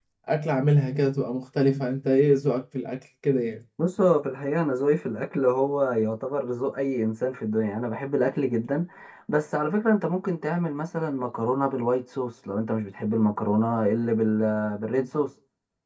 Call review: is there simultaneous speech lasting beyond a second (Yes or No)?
No